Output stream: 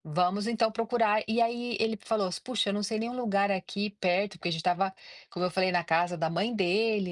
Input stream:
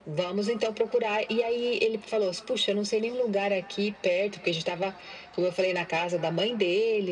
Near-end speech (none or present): none